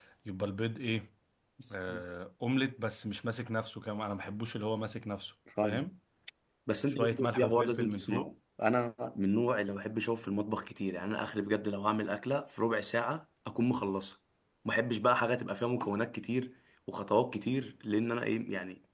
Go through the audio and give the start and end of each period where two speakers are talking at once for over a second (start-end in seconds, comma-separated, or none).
6.9-8.3